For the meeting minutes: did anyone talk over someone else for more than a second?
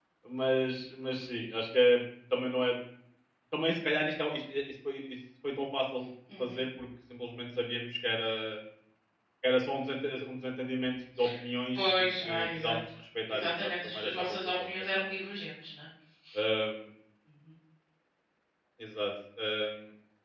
Yes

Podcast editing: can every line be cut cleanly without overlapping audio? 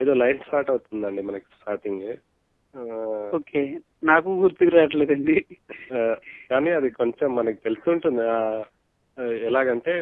Yes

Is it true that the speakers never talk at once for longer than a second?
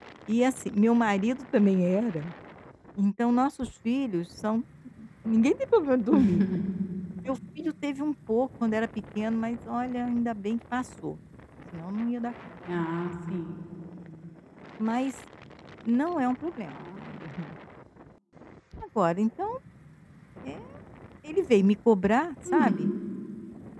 Yes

